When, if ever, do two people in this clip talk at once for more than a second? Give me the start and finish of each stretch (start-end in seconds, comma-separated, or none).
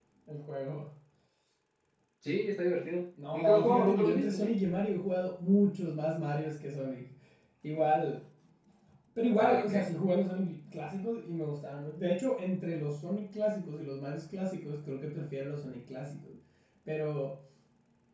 3.3-4.6